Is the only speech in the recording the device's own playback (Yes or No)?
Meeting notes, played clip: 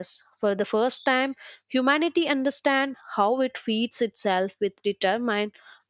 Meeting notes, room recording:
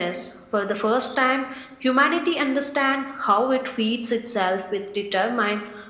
Yes